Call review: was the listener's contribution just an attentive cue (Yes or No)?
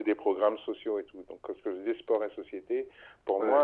Yes